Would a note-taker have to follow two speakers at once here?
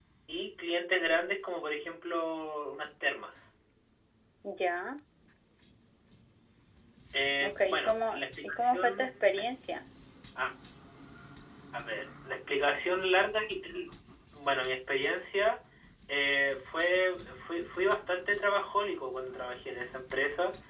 Yes, from 7.4 s

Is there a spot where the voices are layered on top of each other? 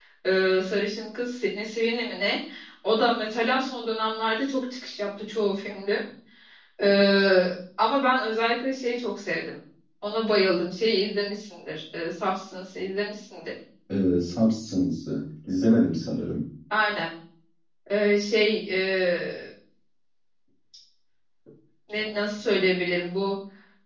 No

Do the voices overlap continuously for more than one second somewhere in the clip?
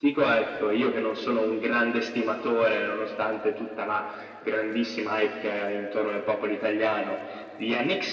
No

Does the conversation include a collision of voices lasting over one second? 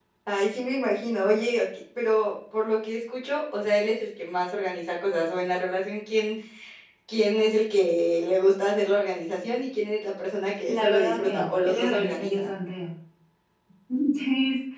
Yes, from 10.7 s

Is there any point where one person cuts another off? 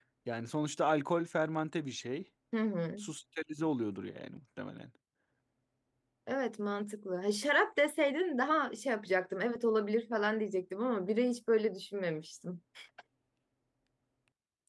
No

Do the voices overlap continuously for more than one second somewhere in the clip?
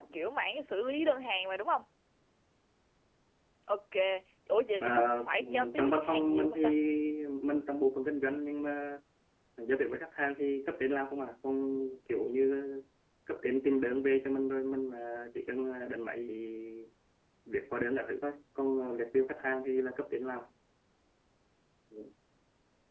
Yes, from 4.8 s

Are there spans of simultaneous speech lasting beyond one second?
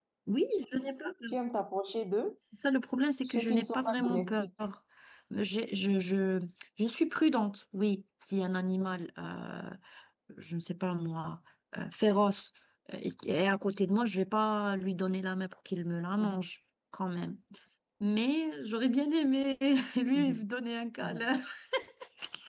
Yes, from 3.2 s

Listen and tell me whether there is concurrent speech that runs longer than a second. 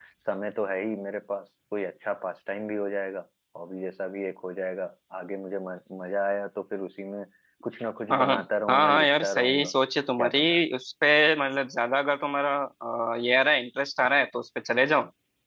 Yes, from 8.1 s

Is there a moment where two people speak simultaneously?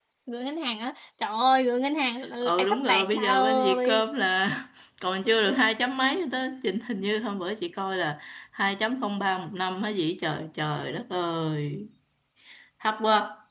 Yes, from 2.4 s

